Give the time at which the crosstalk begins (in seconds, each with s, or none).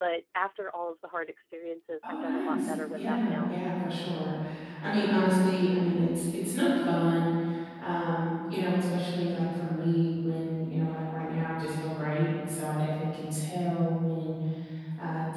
2.0 s